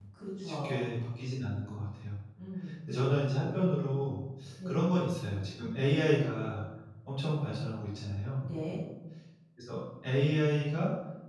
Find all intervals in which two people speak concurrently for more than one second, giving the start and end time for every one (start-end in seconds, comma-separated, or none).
none